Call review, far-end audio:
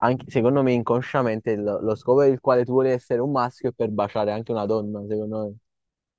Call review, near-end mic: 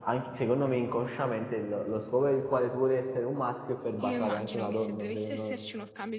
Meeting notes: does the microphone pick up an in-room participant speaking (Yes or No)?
Yes